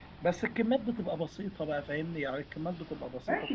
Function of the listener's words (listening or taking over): taking over